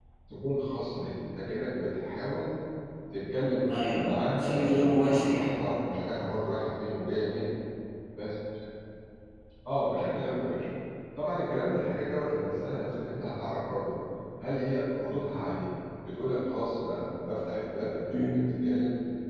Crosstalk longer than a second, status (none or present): present